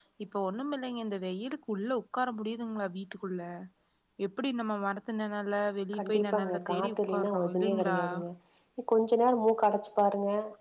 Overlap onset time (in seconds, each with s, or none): 5.9 s